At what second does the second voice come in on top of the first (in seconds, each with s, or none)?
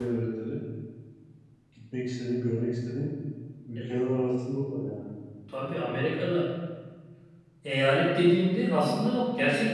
none